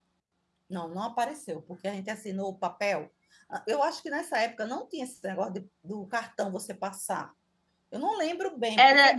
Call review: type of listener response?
taking over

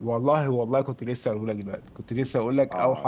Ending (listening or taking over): taking over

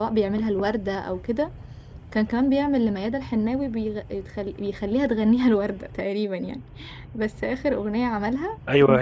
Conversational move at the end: taking over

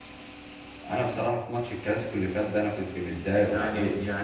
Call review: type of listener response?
taking over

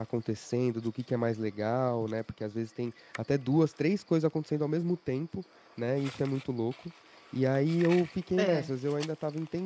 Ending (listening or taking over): listening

